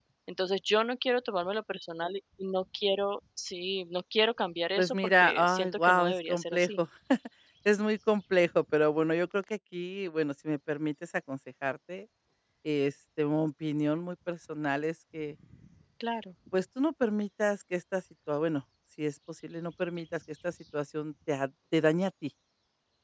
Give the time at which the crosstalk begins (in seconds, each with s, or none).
4.8 s